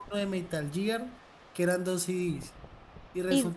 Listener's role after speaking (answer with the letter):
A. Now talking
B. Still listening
B